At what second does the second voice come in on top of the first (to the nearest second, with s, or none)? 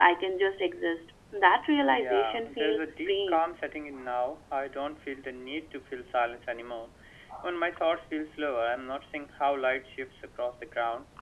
2 s